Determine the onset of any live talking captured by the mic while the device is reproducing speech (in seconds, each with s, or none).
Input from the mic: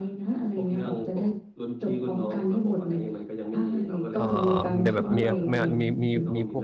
4.1 s